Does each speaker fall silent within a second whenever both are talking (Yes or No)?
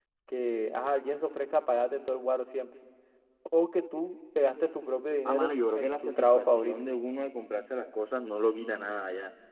No